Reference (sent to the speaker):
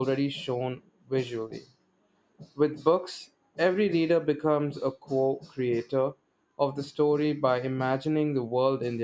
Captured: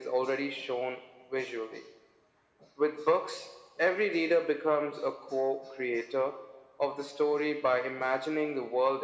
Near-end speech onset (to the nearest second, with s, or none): none